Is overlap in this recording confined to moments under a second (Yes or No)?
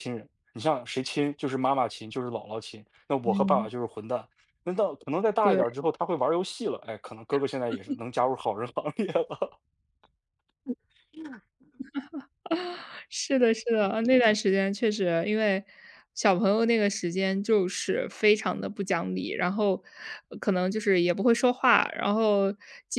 Yes